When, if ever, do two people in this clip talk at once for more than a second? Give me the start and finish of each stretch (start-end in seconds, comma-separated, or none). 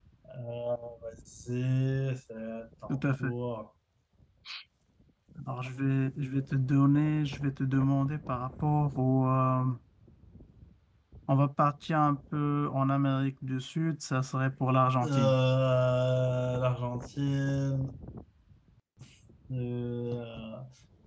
none